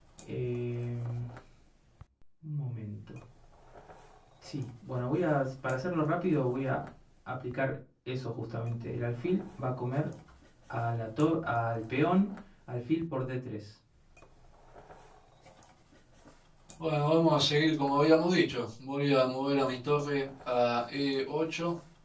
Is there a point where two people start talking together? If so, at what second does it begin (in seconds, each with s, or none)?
none